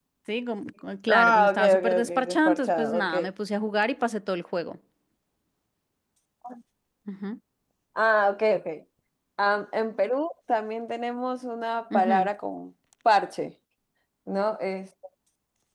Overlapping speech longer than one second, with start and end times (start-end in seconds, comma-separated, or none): 1.1-3.1